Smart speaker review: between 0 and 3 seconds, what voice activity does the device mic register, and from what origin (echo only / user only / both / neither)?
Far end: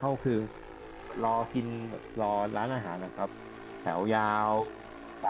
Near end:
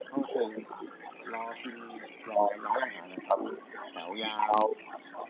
echo only